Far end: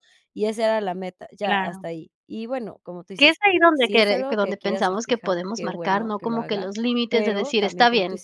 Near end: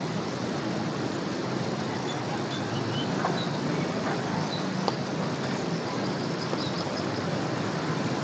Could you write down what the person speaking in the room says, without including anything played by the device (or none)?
none